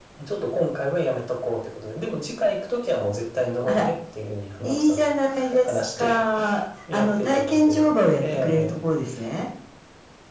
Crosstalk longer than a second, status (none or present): present